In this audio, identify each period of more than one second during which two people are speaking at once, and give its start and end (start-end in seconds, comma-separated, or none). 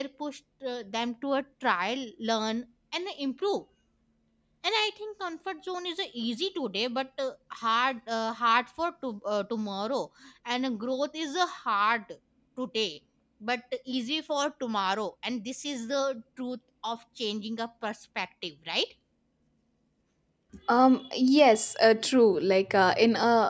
none